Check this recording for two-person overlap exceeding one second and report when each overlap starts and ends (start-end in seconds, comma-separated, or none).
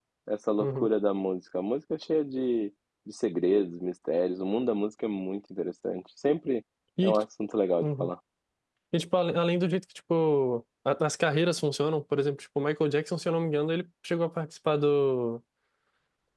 none